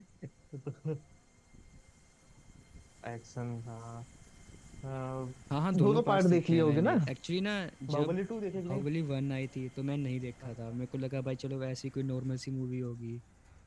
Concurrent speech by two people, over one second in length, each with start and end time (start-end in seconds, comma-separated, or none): 5.7-6.9